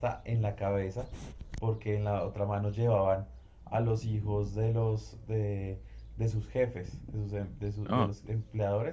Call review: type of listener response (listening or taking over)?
listening